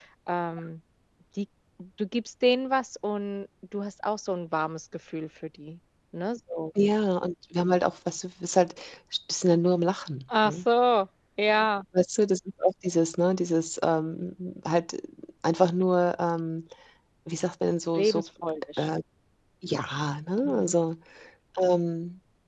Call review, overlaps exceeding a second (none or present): none